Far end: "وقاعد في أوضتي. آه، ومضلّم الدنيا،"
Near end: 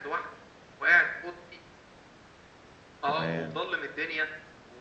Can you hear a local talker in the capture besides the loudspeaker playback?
Yes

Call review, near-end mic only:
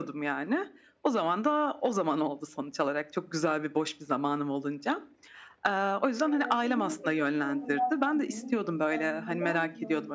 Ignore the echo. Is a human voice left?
Yes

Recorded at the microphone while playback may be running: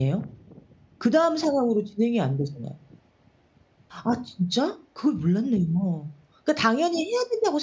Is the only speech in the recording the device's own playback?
No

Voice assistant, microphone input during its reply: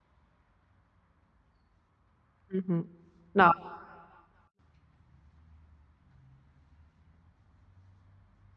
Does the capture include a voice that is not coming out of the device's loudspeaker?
Yes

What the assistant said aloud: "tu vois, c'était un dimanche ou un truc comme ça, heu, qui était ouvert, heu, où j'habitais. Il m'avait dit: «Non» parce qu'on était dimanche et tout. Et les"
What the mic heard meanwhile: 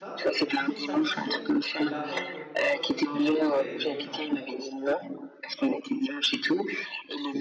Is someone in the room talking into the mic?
Yes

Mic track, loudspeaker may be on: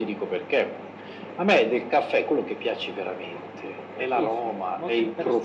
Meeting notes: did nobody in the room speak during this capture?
No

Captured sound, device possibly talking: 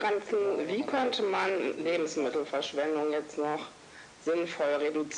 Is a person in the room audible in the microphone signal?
Yes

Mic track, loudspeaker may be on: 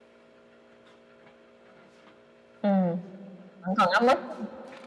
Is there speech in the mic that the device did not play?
Yes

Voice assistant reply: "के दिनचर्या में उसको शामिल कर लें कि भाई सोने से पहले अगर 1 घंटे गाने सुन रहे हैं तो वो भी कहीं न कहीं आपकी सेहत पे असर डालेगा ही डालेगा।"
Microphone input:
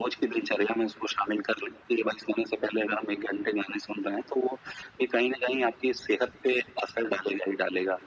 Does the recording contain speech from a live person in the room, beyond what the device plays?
No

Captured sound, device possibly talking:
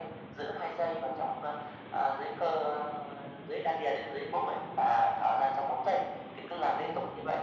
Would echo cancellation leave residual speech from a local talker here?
No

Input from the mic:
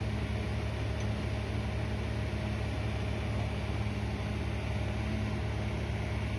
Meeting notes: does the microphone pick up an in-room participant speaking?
No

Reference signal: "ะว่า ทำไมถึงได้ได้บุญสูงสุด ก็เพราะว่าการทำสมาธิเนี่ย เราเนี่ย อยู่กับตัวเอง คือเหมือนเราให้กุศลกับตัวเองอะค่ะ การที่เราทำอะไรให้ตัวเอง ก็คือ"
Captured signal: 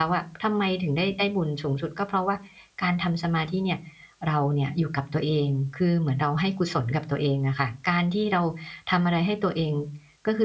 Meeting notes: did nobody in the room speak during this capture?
Yes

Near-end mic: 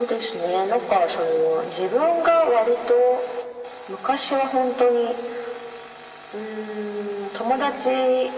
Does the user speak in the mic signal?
No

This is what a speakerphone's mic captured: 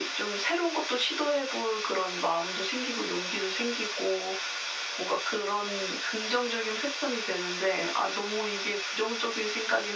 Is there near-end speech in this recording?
No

